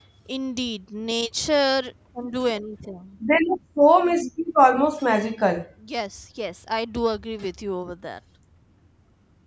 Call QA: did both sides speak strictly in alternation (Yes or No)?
Yes